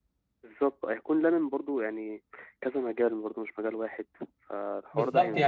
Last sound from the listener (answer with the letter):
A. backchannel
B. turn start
B